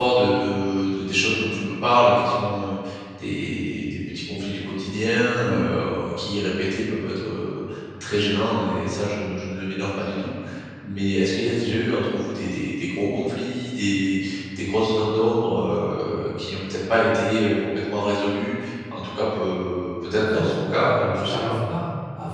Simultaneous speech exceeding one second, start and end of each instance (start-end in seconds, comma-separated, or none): 20.2-21.5